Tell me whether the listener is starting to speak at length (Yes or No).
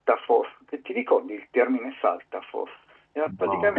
No